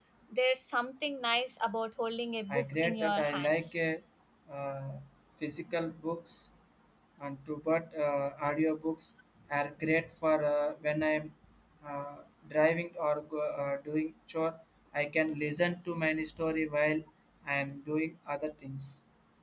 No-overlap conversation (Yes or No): No